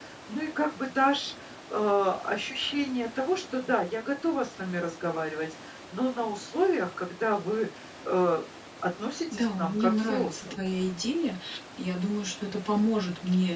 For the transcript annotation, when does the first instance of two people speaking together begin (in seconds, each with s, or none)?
9.3 s